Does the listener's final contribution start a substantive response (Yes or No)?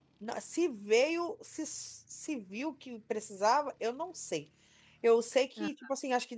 No